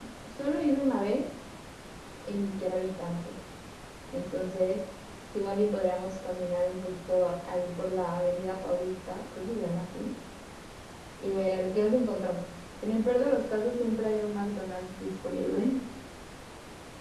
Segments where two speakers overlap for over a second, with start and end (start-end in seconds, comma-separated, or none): none